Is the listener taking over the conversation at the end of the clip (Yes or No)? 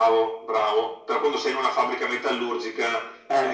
No